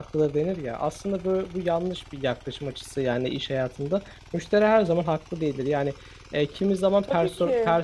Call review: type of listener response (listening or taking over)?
listening